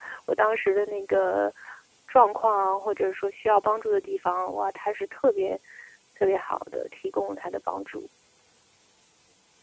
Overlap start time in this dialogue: none

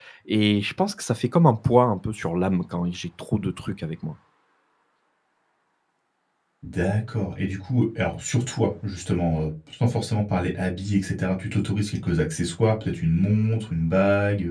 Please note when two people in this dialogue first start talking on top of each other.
none

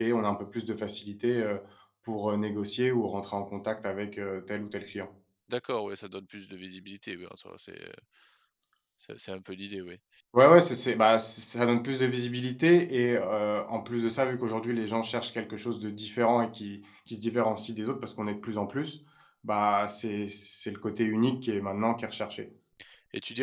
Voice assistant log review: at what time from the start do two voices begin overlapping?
none

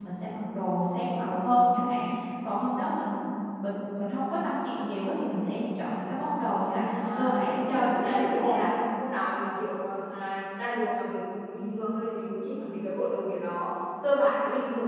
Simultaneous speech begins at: 7.0 s

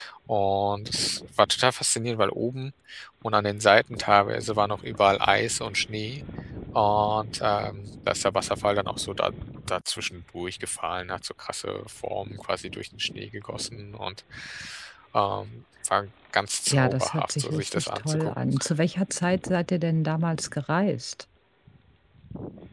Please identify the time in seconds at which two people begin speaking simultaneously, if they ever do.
16.7 s

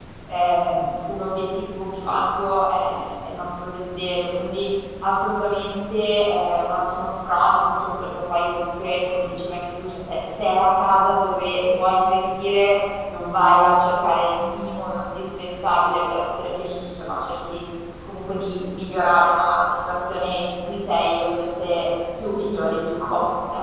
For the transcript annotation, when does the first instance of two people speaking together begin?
none

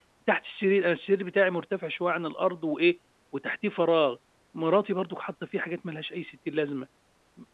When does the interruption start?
none

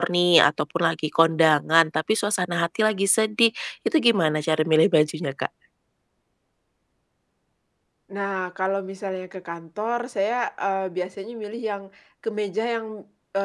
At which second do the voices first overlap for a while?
none

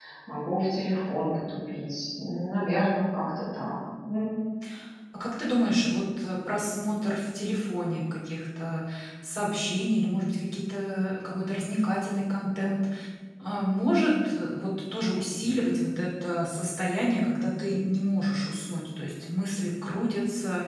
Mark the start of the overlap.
none

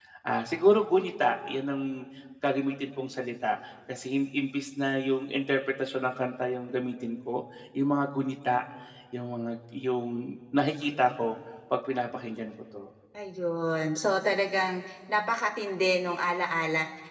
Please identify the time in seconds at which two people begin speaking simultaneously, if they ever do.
none

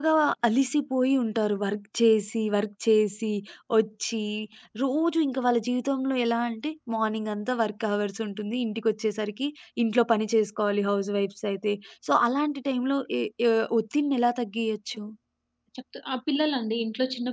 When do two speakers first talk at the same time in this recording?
none

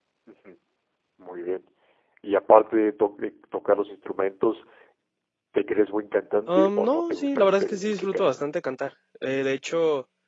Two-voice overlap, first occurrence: 6.5 s

